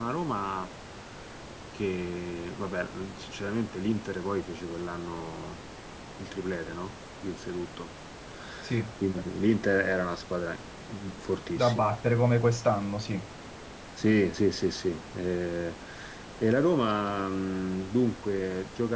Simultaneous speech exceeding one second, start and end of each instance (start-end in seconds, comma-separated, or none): none